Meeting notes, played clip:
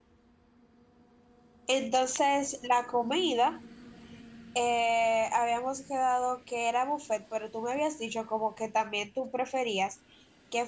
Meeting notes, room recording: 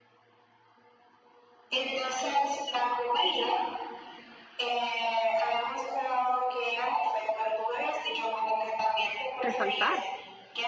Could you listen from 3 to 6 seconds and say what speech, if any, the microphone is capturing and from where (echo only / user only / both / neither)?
echo only